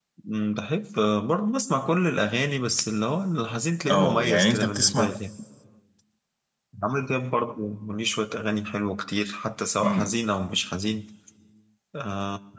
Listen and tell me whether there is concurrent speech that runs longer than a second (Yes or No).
Yes